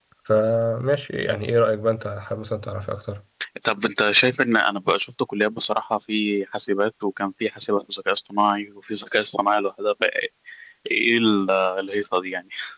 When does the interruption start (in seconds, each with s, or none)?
none